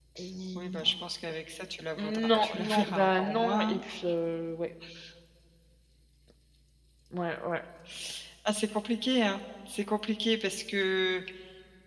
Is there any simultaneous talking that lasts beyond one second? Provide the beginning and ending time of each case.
2.0-3.8

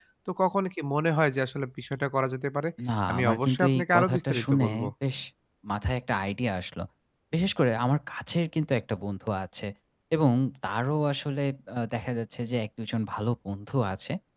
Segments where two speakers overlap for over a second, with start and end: 3.1-4.9

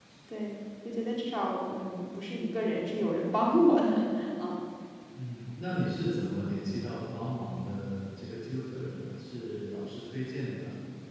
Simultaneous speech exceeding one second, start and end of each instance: none

